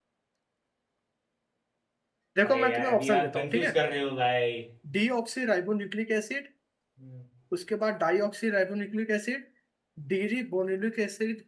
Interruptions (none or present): present